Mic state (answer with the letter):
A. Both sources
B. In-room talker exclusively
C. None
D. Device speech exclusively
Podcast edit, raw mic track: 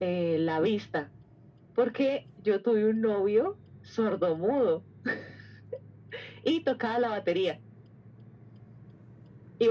D